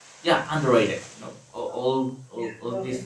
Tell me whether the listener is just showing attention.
Yes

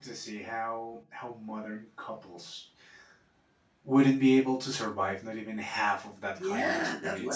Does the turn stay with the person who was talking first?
No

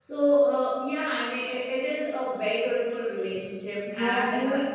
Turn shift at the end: Yes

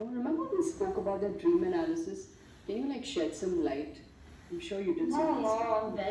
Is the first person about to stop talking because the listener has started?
Yes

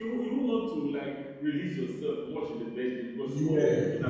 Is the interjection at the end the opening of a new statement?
No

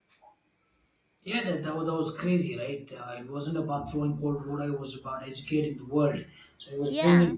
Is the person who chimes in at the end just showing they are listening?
Yes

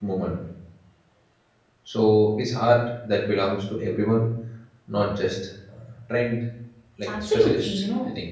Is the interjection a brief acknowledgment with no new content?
No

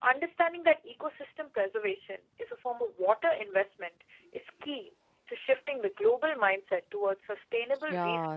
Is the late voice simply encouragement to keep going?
No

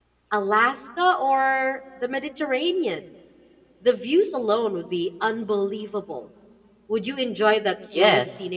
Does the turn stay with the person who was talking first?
No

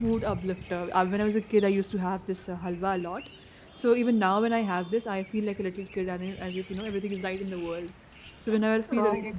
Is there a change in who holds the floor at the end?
No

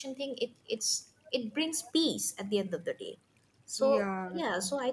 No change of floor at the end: Yes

